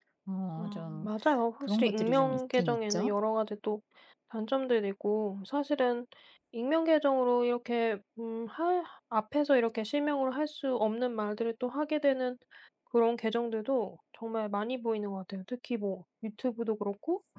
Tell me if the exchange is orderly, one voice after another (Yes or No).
No